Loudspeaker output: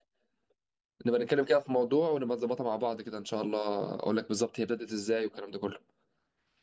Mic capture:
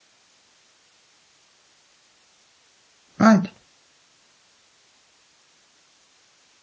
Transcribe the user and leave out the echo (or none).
عادي